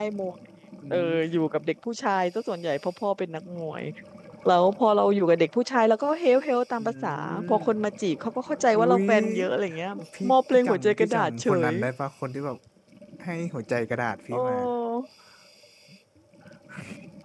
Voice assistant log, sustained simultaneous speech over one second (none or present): present